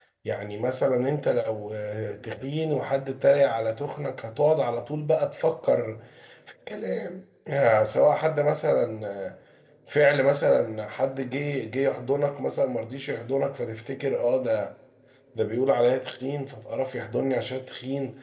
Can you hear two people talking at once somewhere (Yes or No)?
No